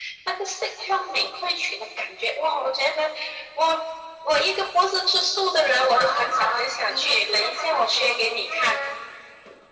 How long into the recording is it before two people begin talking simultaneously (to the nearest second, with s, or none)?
6 s